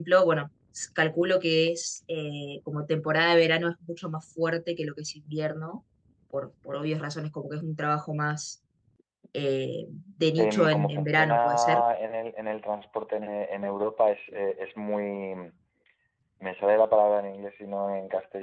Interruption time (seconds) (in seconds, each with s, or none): 10.4 s